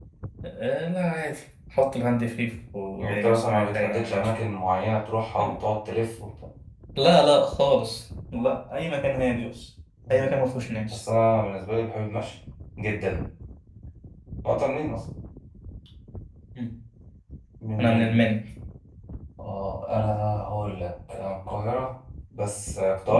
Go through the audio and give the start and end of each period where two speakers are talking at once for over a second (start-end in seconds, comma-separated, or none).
3.0-4.4